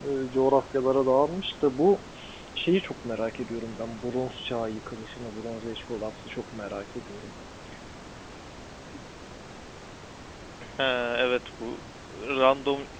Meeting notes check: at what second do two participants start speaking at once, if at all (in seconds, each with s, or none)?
none